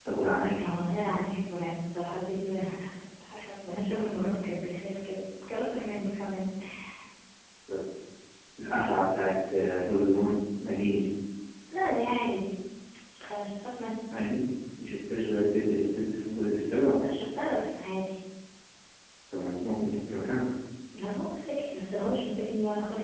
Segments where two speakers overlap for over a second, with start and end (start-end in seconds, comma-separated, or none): none